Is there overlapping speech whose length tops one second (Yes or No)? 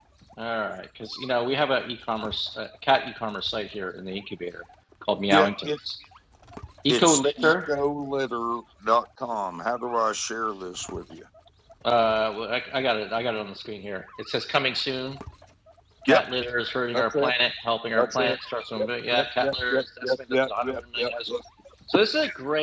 Yes